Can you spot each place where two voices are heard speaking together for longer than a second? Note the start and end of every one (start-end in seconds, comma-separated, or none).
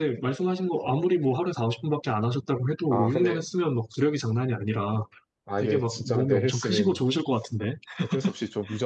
5.6-7.0